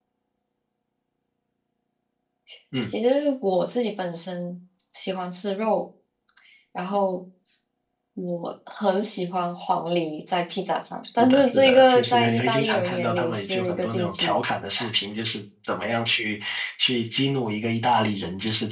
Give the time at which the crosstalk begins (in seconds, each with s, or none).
11.2 s